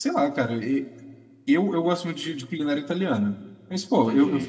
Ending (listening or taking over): listening